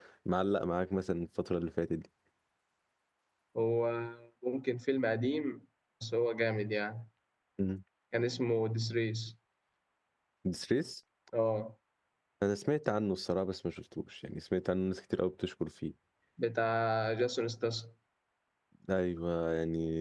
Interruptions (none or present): none